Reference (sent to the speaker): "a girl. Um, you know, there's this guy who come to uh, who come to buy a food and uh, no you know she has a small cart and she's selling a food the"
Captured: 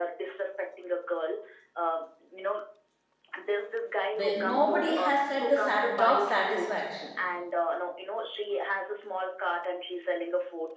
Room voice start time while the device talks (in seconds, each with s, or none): 4.1 s